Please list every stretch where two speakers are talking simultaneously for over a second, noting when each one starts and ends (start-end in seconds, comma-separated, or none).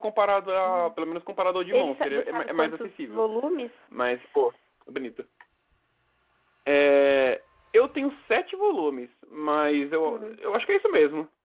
1.7-3.2